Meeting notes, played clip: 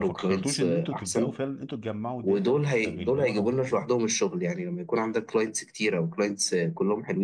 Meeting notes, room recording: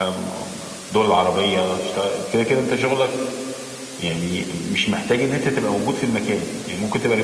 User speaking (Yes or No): Yes